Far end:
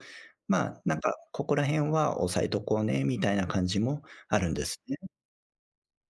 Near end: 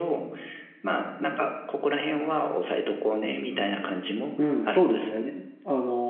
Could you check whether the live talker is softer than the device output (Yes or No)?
No